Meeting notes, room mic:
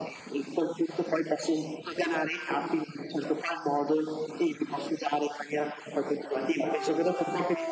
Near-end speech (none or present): none